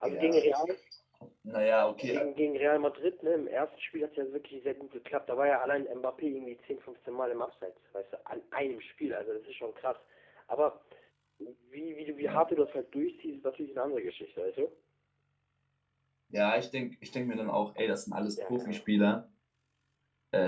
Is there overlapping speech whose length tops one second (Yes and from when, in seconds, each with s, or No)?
No